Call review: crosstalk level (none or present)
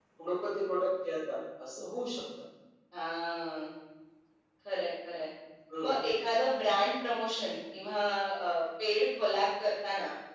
none